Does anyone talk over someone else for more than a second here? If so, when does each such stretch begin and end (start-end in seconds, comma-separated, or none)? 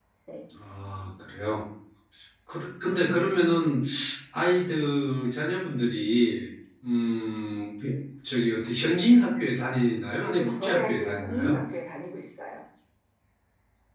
10.2-11.5